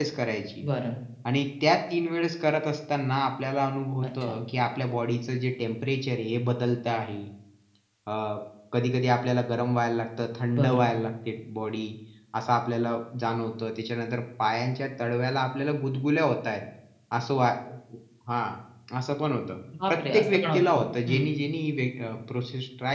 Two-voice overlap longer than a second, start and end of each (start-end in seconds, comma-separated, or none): 19.9-21.3